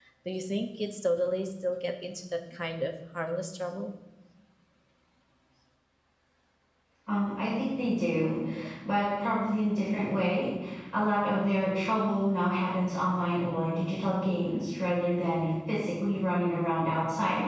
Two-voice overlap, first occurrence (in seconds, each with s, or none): none